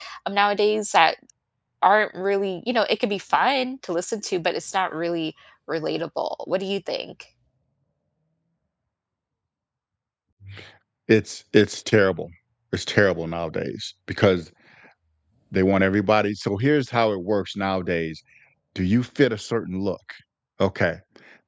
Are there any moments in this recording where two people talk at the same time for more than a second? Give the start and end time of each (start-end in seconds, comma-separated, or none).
none